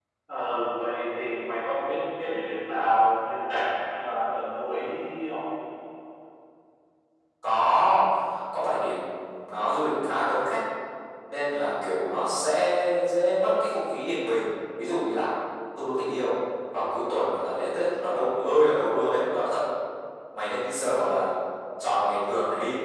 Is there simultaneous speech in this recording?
No

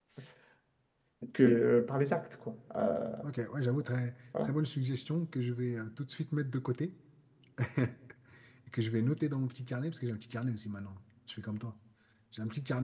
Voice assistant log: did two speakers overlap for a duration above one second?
No

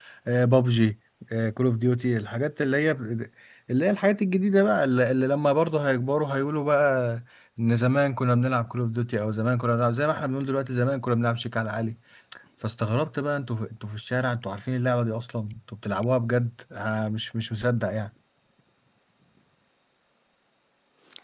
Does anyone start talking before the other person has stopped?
No

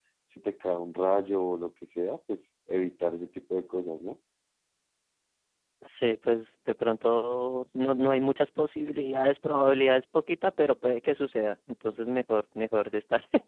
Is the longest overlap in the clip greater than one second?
No

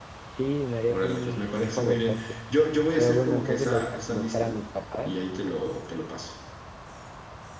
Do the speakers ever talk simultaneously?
Yes, from 0.9 s

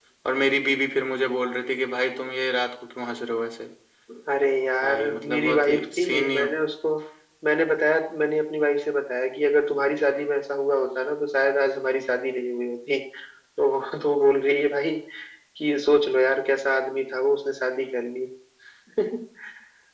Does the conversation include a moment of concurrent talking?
Yes, from 4.8 s

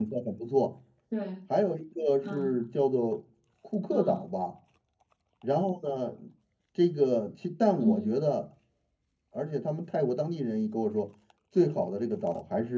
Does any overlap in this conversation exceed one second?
No

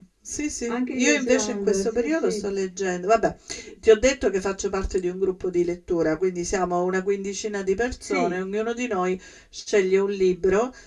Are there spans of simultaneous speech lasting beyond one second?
Yes, from 0.7 s

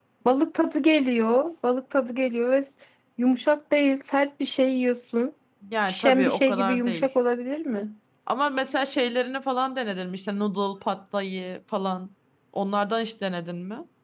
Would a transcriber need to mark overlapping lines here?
Yes, from 5.9 s

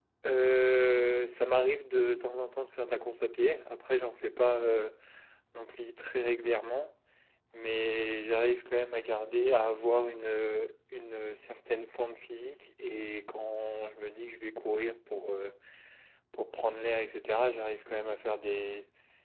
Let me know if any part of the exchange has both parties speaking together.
No

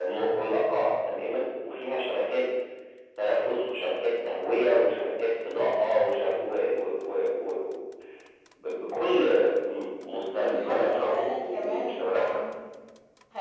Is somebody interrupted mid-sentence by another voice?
Yes, from 10.3 s

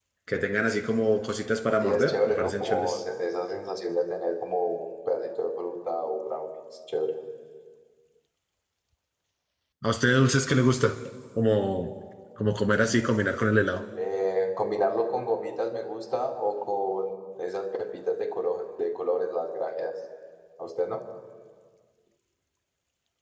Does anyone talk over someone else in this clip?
Yes, from 1.8 s

